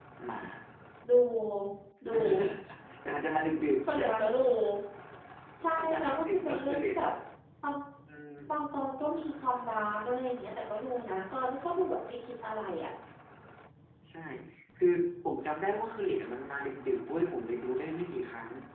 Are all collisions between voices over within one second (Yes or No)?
No